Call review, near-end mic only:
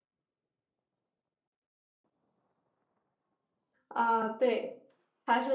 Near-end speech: present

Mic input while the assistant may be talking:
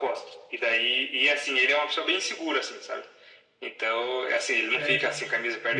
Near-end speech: present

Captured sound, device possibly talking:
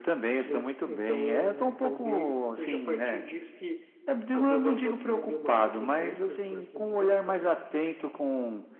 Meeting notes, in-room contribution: none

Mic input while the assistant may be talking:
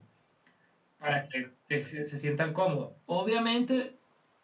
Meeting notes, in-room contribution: none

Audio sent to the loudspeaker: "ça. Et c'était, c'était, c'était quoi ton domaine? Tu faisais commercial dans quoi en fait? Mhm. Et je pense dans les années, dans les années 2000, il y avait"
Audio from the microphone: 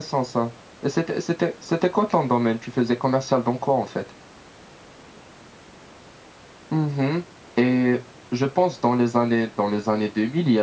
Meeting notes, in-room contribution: none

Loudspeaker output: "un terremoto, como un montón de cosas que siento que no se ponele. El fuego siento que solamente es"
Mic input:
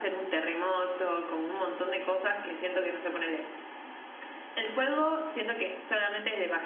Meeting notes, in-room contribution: none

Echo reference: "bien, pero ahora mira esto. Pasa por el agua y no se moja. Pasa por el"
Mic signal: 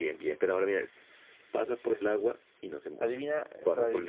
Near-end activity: present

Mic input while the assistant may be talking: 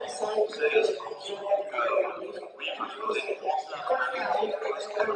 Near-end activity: none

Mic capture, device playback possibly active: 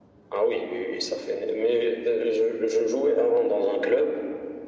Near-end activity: none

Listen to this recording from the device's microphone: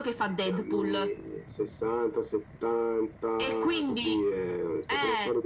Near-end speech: none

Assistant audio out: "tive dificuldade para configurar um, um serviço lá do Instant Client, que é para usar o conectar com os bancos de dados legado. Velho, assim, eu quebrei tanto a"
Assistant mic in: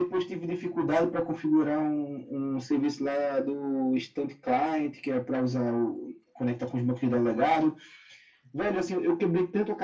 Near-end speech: none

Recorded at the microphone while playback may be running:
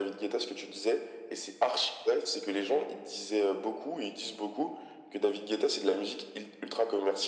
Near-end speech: none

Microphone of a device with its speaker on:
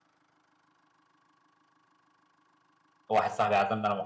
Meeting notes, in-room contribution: present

